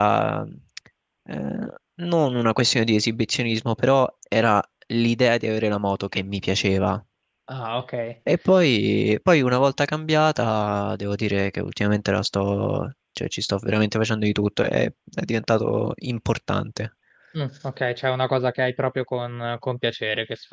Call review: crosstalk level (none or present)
none